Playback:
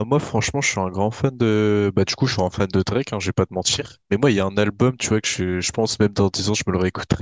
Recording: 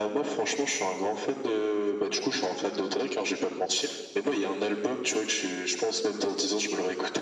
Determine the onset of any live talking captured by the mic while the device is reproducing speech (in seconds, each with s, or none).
none